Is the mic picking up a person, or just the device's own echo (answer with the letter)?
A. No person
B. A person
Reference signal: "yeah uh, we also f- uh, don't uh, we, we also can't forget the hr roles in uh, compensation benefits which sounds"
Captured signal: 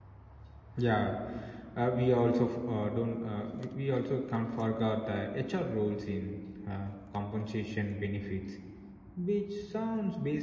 A